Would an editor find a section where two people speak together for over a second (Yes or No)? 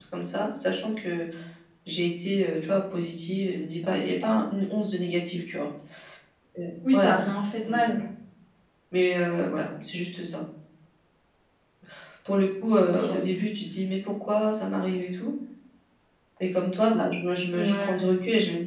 No